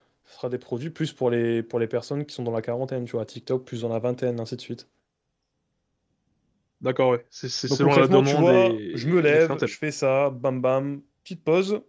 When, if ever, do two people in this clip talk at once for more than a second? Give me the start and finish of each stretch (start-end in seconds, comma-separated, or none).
7.7-9.7